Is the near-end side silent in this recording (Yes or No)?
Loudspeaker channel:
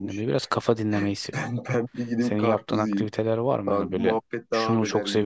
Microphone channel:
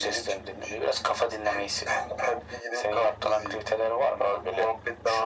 Yes